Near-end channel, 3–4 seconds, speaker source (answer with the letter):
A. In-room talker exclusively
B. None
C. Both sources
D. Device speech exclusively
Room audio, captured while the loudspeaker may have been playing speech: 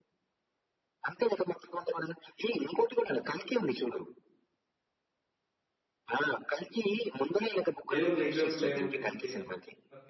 D